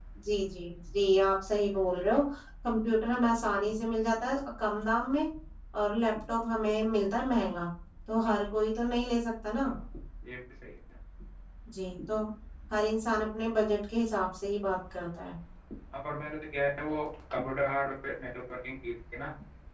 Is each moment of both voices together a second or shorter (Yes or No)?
Yes